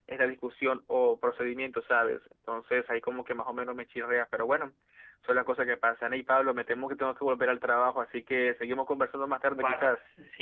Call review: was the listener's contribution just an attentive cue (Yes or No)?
No